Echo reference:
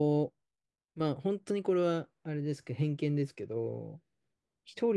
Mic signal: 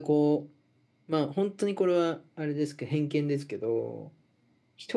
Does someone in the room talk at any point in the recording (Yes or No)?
No